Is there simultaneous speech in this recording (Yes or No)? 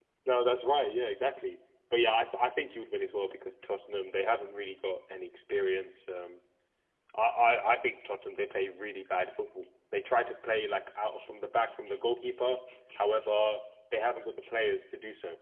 No